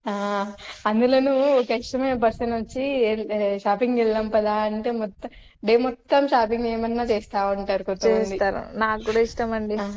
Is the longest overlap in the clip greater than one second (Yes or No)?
No